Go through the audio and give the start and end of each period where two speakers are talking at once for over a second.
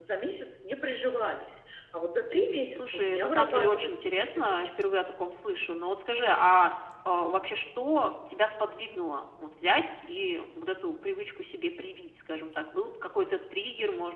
2.8-4.6

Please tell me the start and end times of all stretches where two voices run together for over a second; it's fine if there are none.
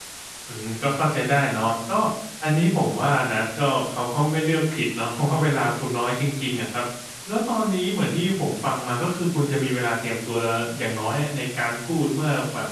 none

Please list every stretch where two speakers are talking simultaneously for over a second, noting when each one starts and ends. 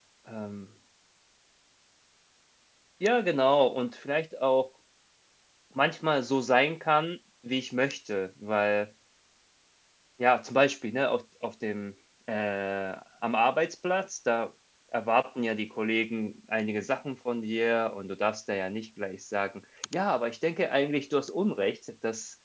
none

